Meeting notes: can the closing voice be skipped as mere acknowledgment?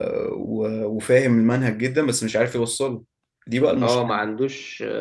No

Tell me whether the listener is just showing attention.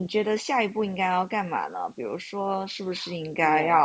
Yes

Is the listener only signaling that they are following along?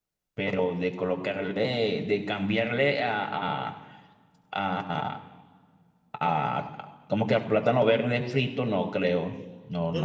No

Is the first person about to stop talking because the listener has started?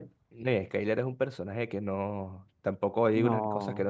No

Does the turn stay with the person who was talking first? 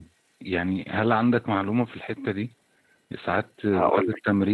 Yes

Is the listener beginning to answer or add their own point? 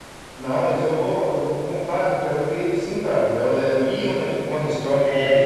No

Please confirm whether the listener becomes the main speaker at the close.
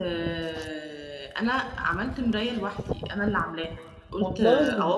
No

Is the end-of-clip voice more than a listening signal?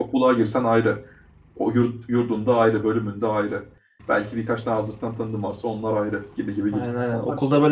Yes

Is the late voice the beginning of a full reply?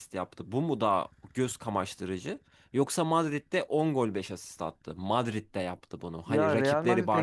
Yes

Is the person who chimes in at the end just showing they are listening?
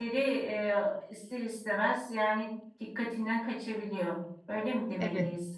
No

